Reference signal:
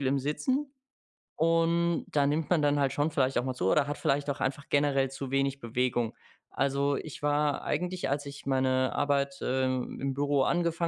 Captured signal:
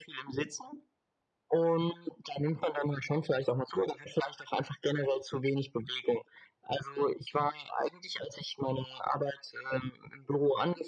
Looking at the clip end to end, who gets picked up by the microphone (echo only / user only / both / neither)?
echo only